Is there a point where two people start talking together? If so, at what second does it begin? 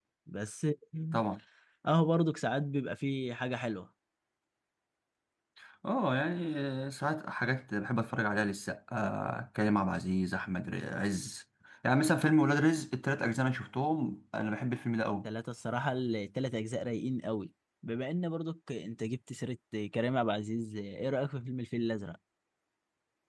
none

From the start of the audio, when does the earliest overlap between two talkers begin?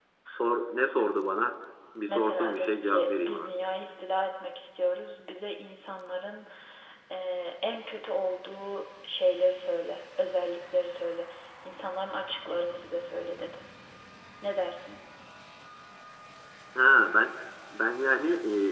2 s

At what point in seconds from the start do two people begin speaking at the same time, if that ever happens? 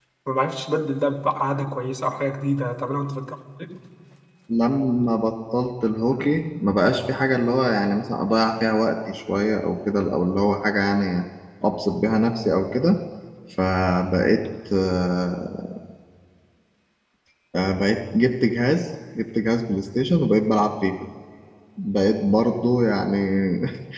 none

